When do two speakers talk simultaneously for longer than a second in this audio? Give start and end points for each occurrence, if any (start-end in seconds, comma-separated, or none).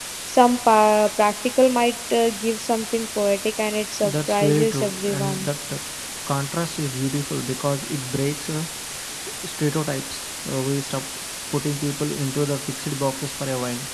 4.3-5.5